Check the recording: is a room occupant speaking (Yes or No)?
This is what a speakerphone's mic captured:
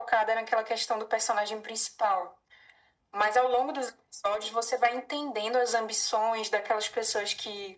No